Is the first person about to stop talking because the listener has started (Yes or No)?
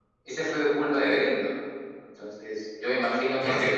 No